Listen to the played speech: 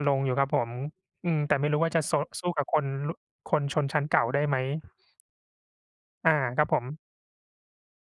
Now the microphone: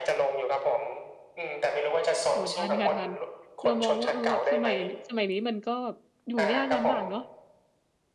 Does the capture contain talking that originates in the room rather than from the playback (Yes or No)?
Yes